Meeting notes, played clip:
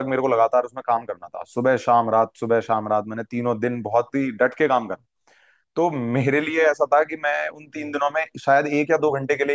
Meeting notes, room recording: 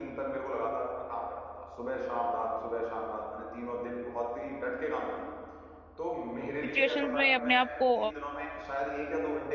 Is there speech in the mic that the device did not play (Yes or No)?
Yes